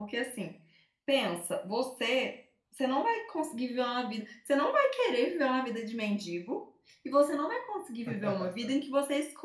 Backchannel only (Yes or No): Yes